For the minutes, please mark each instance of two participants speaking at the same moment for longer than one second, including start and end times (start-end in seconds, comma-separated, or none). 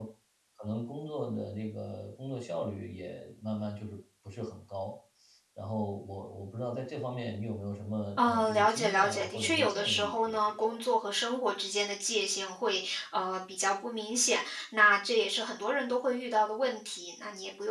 8.2-10.8